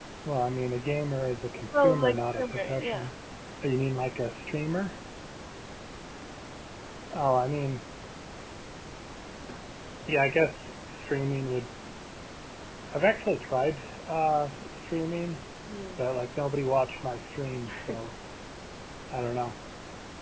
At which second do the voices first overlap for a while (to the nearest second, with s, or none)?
2 s